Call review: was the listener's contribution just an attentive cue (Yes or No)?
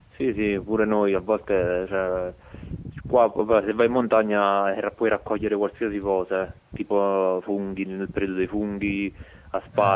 Yes